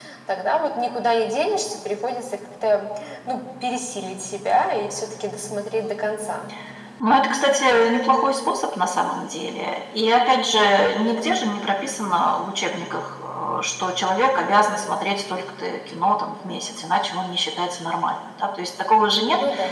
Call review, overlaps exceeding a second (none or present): none